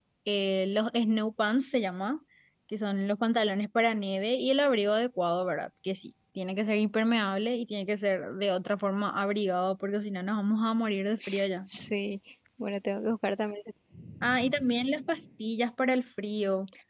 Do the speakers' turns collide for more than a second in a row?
No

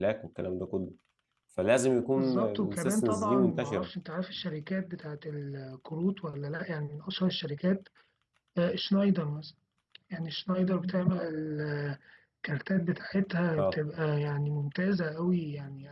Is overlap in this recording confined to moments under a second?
No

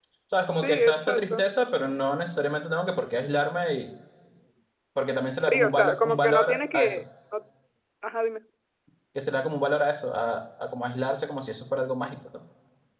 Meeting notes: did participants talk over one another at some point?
Yes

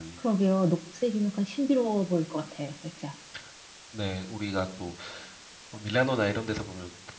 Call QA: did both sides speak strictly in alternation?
Yes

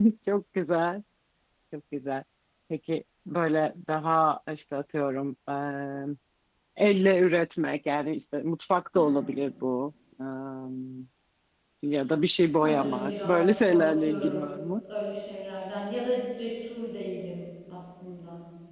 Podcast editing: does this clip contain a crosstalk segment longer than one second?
Yes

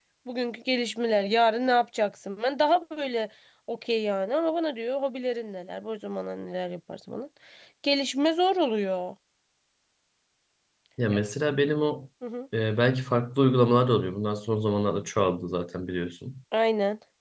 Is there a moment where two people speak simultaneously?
No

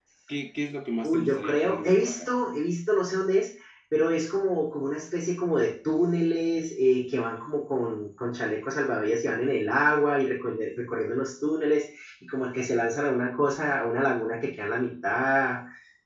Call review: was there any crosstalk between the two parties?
Yes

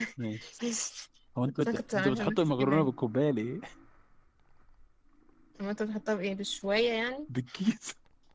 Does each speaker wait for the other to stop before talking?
No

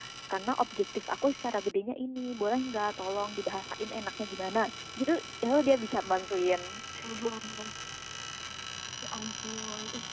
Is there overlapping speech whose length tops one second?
No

